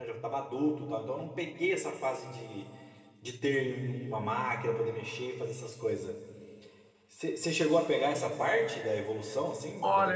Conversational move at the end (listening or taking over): taking over